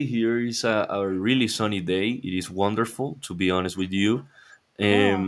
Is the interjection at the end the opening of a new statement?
No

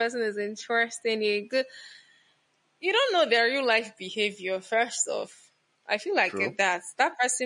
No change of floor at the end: Yes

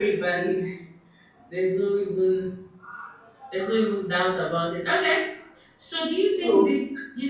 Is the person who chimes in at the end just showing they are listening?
Yes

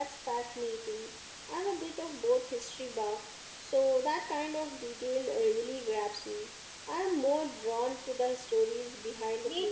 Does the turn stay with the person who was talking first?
No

